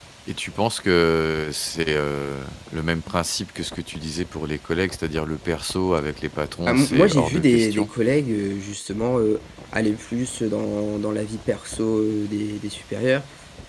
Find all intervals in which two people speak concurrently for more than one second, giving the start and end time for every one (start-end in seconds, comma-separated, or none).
6.7-7.9